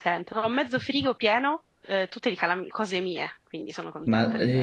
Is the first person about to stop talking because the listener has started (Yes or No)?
Yes